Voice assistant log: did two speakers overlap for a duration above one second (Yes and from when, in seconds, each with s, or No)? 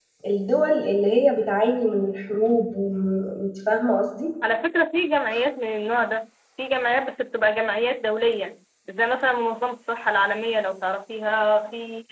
No